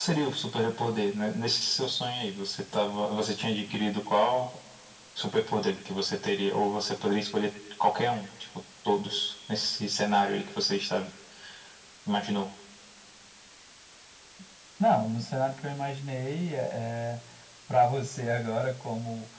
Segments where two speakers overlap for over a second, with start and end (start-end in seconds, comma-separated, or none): none